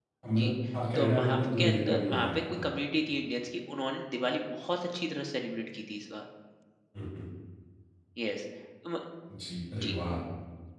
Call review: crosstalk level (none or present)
present